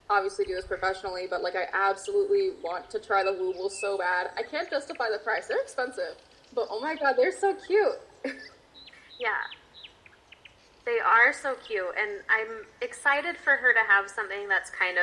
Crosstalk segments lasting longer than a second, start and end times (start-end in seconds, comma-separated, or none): none